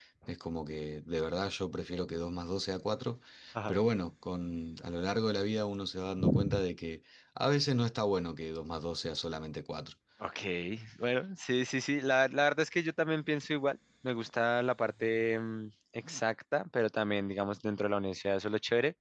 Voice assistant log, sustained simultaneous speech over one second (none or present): none